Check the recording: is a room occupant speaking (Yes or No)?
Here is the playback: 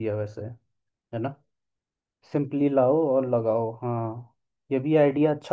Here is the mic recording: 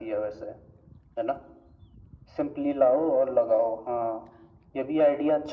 No